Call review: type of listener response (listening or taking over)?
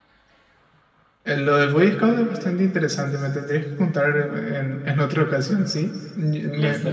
listening